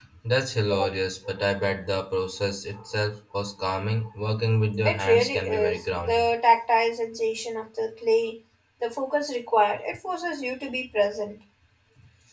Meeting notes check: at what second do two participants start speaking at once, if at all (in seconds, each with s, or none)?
4.8 s